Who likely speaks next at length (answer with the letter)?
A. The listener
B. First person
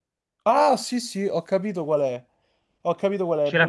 B